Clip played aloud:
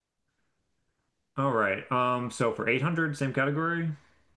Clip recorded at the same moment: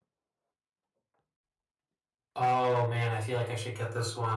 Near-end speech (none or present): present